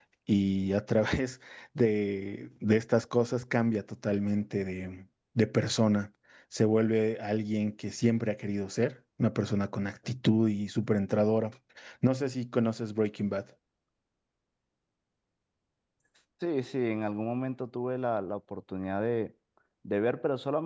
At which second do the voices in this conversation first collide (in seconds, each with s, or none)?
none